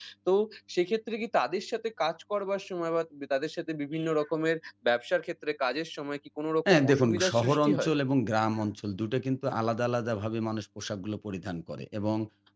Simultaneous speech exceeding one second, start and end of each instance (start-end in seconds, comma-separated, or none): 6.7-7.9